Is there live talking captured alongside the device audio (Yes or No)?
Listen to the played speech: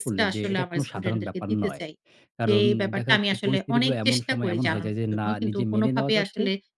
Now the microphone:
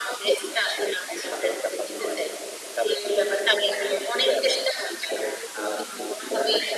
No